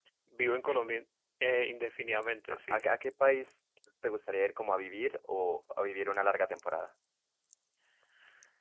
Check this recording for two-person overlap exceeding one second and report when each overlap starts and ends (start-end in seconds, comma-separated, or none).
none